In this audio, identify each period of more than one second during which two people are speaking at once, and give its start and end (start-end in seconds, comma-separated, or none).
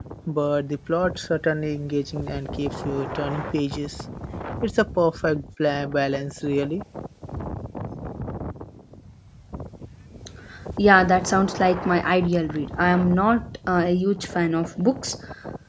none